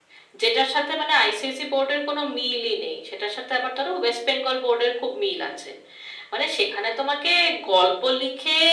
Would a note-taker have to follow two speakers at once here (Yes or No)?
No